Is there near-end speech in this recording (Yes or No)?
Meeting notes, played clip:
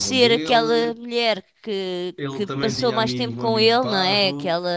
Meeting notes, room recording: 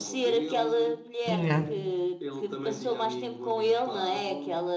Yes